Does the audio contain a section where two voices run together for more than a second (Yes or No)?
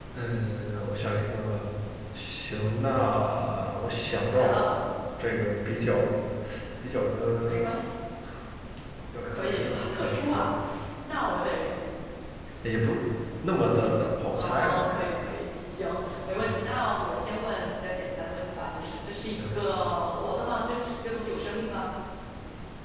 Yes